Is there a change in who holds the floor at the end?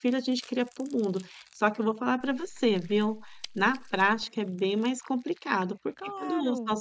No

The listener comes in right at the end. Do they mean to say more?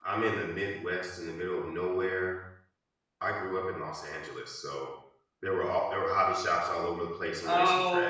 Yes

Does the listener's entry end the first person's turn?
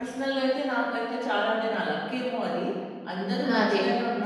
No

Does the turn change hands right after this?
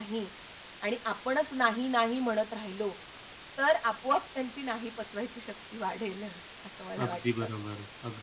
Yes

